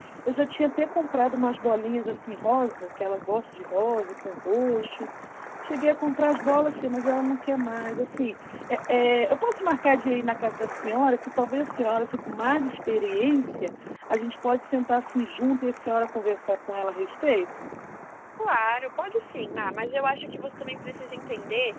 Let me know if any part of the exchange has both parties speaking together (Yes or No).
No